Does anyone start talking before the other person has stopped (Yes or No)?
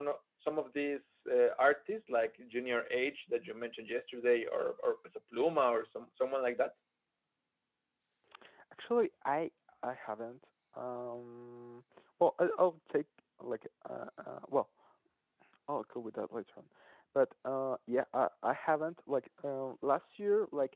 No